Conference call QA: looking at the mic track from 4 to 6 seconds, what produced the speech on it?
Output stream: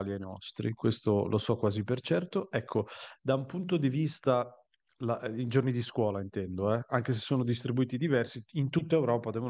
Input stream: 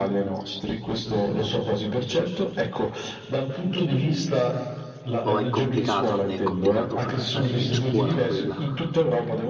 both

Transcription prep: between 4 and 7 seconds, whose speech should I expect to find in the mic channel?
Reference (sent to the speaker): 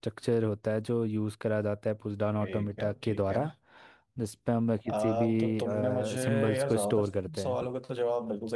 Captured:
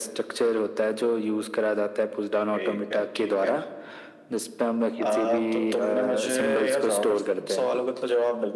echo only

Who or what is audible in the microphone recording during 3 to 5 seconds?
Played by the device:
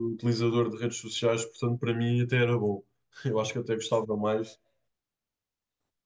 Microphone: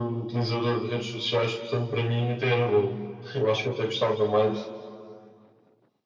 echo only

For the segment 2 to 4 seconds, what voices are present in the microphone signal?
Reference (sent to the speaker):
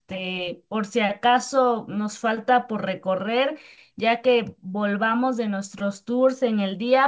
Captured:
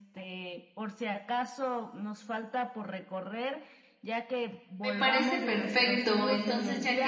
echo only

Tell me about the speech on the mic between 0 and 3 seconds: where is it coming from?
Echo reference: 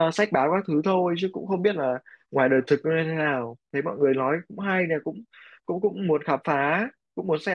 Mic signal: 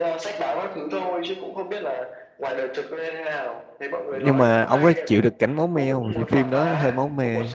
echo only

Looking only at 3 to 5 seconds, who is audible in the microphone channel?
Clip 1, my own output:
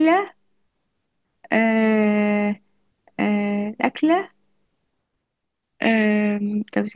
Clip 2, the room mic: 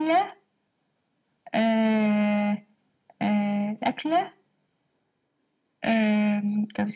echo only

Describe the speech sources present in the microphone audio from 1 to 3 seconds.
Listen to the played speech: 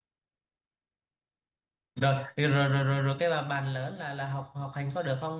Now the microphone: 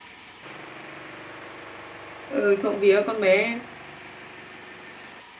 user only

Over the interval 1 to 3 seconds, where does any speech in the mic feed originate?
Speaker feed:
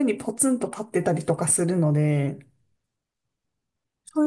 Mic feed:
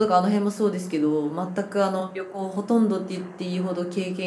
user only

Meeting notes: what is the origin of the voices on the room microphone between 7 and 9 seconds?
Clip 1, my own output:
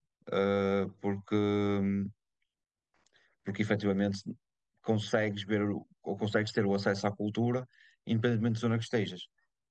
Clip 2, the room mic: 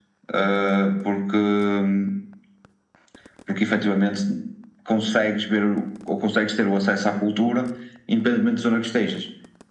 echo only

